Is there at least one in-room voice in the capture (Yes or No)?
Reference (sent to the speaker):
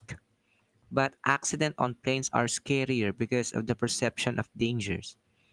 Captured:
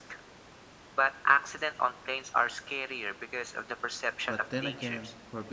Yes